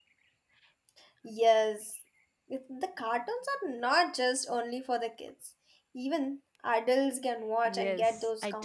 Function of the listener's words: taking over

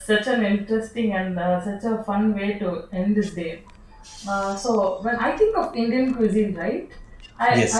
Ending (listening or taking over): listening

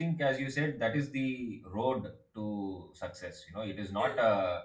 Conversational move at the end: listening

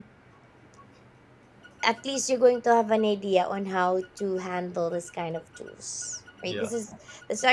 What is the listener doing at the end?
listening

